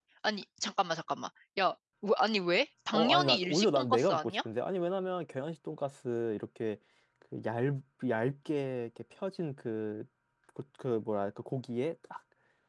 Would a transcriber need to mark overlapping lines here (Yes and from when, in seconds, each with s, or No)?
Yes, from 2.9 s